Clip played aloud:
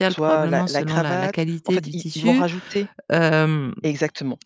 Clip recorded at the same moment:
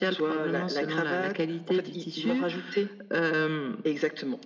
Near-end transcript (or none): none